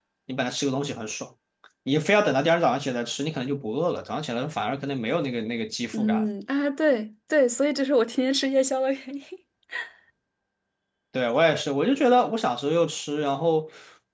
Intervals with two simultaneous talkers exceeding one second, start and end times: none

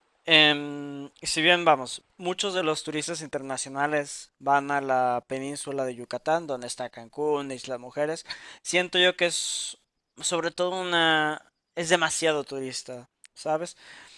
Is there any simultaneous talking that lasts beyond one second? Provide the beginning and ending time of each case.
none

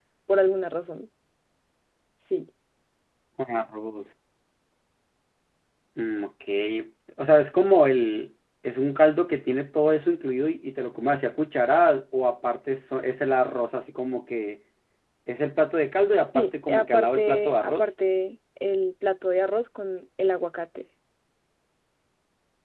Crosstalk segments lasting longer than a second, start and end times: 16.3-17.8

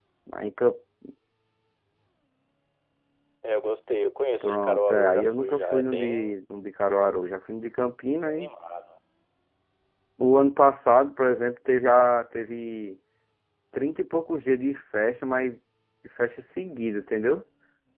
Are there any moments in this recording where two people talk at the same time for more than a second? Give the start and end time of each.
4.4-6.3

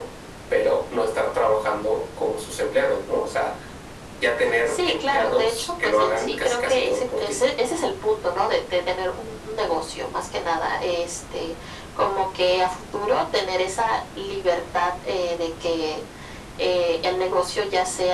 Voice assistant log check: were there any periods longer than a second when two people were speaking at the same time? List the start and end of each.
4.7-7.4

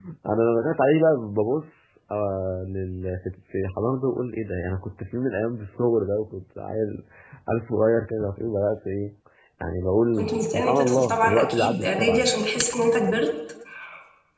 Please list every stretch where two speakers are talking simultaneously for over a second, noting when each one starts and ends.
10.2-12.3

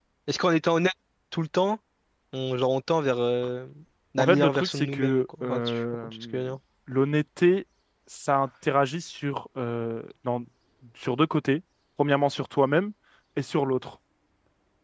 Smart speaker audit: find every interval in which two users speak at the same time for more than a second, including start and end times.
4.2-6.4

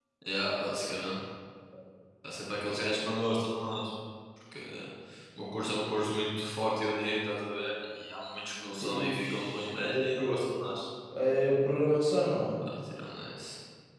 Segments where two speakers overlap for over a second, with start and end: 8.8-10.2

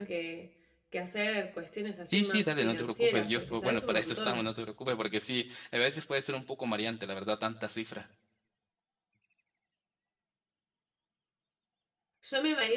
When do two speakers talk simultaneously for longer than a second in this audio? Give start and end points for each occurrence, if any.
2.0-4.5

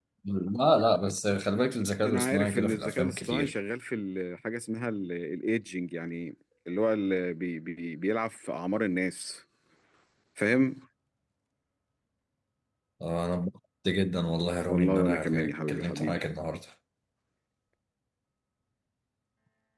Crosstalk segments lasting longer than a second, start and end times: 2.0-3.5, 14.7-16.2

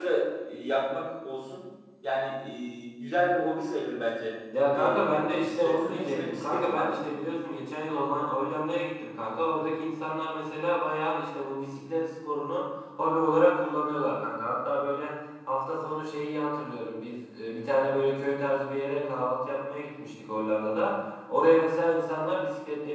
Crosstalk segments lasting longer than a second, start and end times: 4.7-7.0

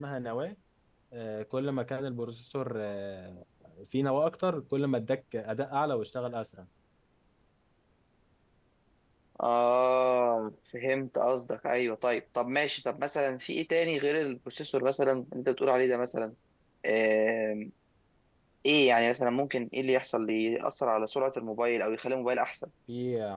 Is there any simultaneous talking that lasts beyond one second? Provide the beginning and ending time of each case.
none

